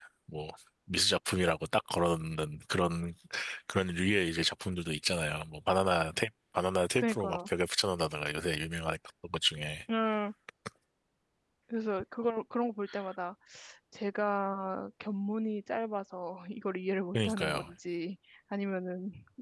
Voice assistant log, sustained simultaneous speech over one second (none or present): none